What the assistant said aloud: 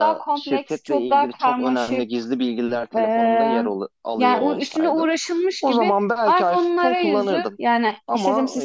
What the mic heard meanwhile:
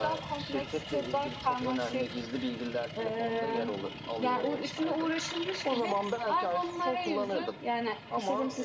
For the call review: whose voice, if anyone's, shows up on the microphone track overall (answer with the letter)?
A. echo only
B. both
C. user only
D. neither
A